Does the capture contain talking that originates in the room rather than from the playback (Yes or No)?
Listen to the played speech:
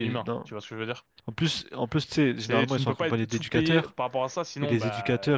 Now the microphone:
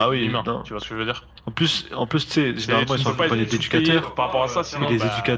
Yes